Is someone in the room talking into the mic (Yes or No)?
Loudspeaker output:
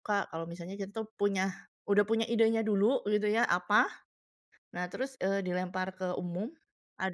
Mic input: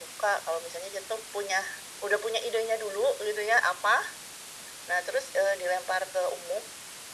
No